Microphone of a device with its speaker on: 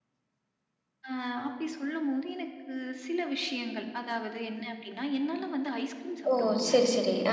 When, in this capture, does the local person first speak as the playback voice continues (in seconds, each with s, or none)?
6.3 s